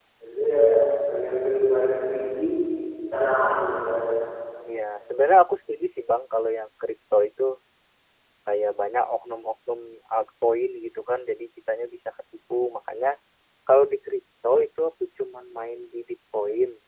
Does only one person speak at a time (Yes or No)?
Yes